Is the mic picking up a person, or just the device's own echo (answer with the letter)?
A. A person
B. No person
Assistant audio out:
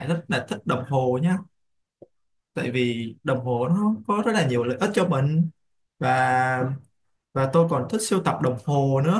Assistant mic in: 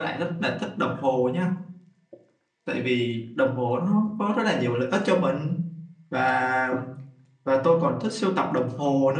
B